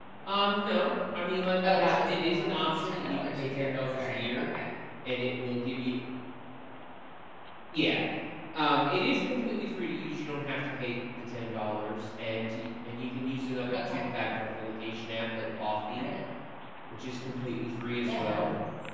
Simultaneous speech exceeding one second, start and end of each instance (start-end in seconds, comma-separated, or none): 1.6-4.4